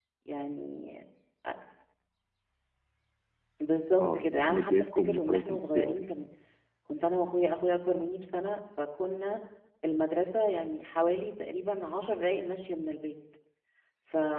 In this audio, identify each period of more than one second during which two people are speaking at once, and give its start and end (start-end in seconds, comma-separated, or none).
4.0-6.0